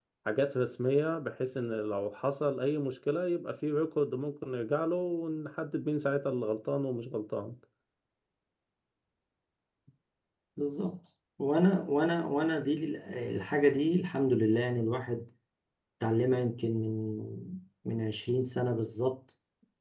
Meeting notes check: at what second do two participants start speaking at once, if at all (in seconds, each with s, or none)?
none